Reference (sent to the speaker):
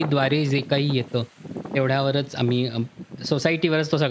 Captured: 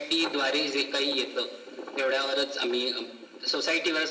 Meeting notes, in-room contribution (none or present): none